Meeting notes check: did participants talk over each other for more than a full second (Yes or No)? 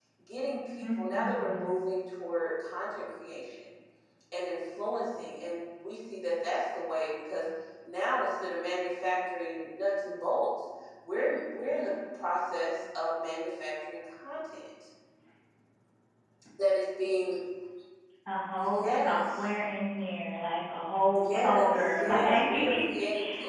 Yes